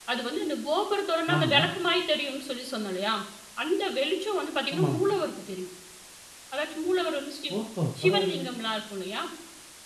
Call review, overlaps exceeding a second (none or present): none